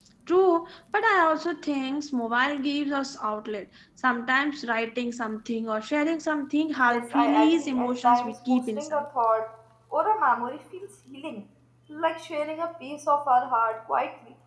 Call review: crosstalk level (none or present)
present